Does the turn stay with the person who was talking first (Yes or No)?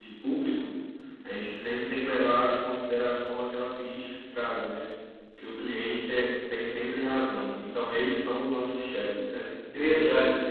No